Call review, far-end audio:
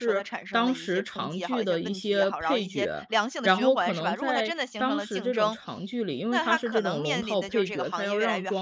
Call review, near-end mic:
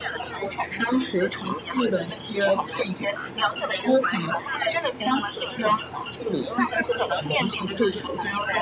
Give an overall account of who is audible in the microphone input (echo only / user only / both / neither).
echo only